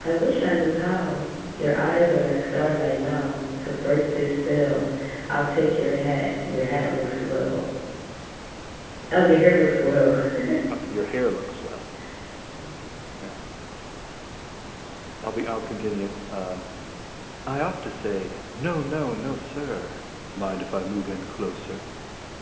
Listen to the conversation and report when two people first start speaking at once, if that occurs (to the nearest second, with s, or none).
none